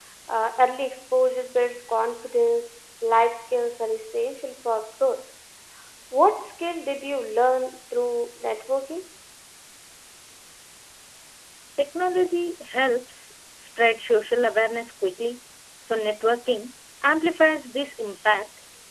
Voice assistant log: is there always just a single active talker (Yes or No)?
Yes